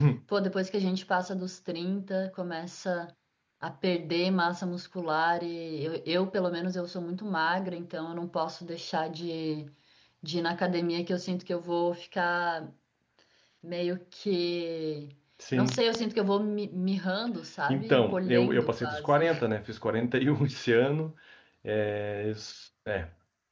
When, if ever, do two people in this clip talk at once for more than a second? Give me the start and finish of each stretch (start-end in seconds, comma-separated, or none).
17.7-19.2